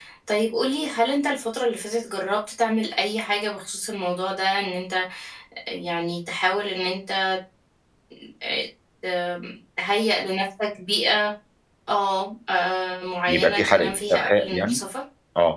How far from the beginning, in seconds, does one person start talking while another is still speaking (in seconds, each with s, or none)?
13.3 s